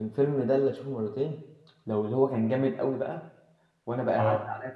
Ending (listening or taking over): listening